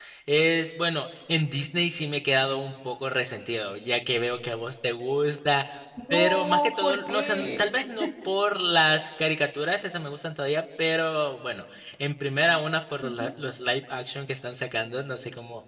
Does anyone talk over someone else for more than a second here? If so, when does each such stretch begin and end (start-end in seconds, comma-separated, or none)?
6.1-7.7